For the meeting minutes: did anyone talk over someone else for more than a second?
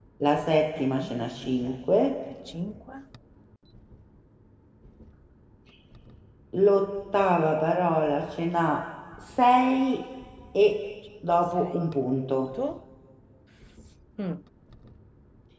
Yes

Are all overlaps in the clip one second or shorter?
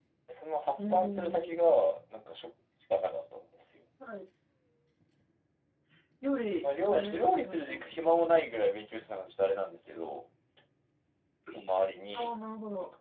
No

